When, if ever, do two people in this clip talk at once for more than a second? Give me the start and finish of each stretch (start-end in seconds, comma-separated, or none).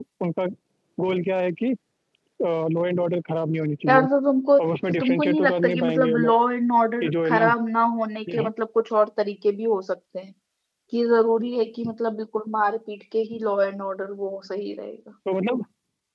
5.0-6.3